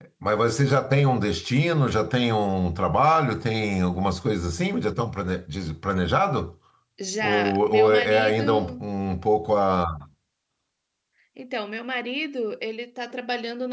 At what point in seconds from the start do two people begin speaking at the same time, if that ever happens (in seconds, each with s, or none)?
7.2 s